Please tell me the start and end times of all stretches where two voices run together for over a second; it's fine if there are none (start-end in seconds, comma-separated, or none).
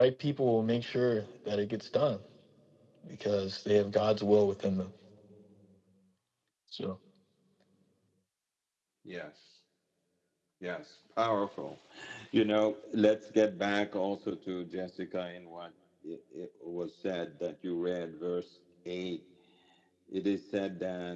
none